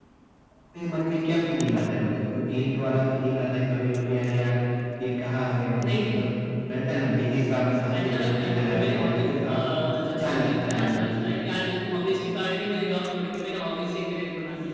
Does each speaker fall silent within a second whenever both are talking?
No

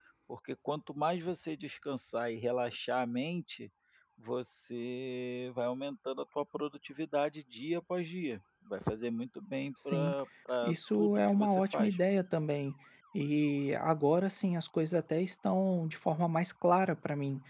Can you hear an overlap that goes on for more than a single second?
Yes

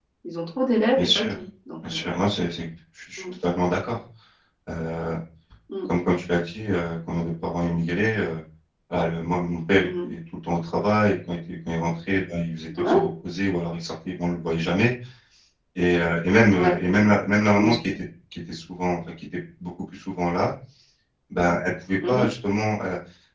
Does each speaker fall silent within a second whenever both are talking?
Yes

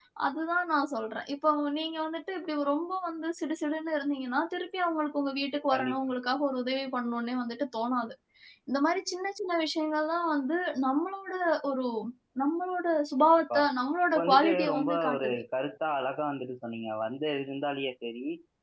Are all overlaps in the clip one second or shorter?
No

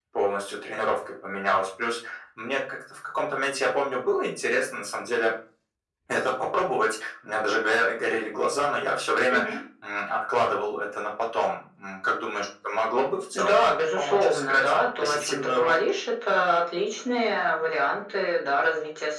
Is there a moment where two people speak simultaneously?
Yes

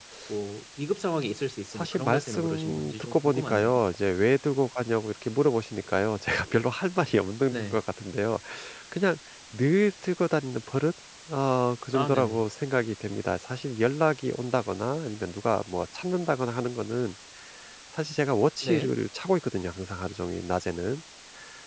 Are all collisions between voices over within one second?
No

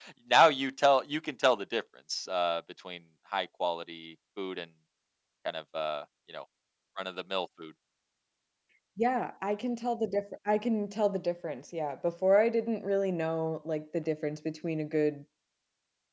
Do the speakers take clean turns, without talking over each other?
Yes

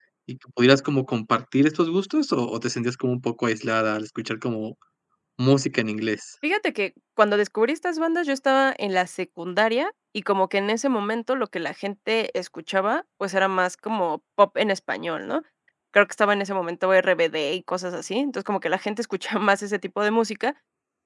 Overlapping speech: No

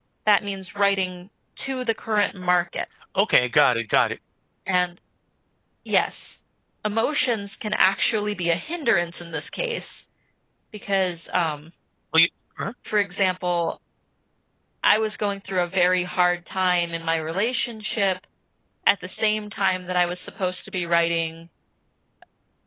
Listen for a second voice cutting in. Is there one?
No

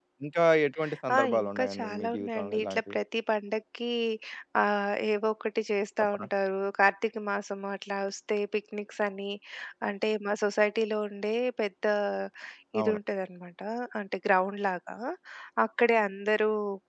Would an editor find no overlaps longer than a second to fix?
No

